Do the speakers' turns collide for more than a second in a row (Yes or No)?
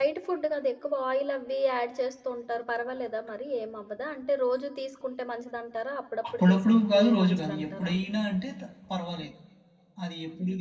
Yes